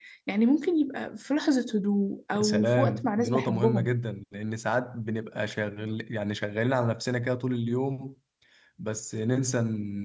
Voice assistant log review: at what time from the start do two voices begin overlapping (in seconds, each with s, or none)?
2.3 s